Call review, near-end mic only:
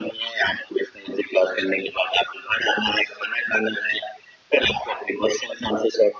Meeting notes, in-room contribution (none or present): none